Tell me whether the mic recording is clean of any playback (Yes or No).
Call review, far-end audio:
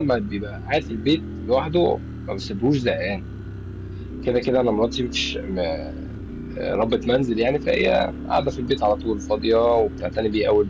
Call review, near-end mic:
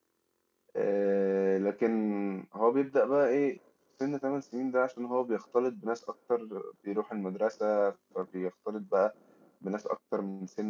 Yes